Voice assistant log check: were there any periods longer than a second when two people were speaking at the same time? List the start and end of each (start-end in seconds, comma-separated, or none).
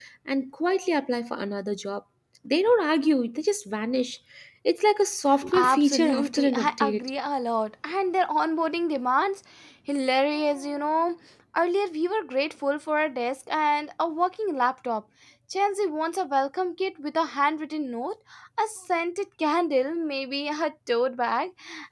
5.5-7.0